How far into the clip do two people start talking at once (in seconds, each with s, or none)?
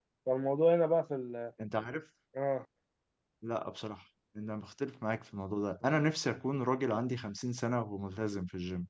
none